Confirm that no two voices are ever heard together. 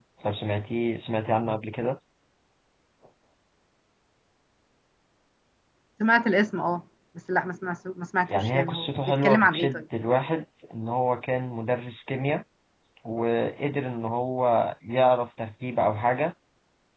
No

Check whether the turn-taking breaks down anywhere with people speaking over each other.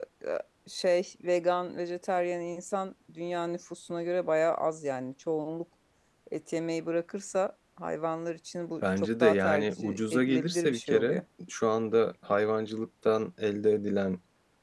Yes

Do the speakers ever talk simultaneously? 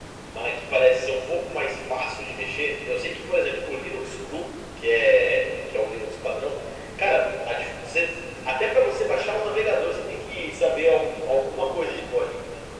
No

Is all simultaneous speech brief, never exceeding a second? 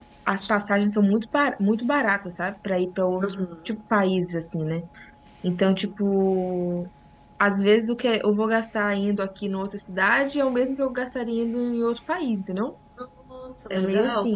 Yes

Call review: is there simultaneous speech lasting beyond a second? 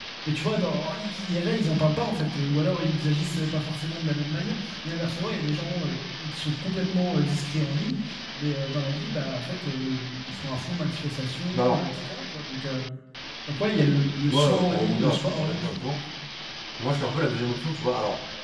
Yes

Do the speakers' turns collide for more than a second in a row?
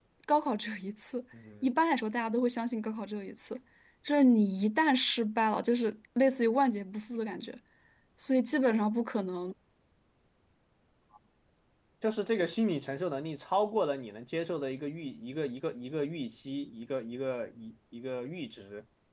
No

